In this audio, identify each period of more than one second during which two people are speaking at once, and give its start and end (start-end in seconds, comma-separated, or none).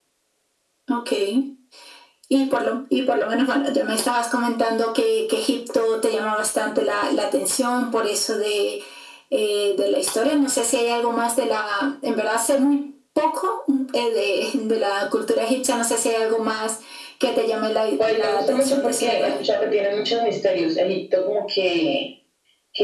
18.0-19.4